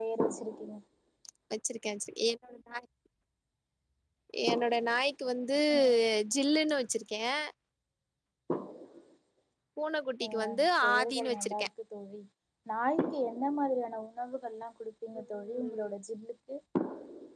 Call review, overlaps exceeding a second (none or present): present